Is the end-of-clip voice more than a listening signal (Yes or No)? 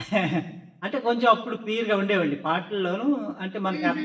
No